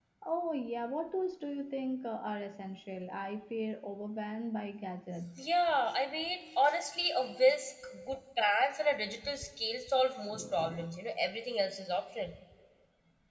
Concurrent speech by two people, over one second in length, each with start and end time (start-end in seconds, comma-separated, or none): none